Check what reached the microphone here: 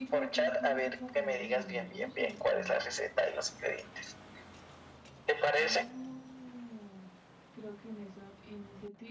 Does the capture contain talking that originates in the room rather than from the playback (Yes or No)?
Yes